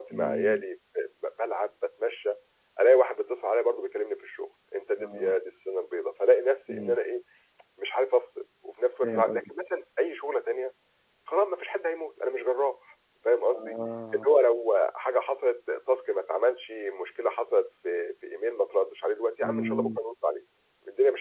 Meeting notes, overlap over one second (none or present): none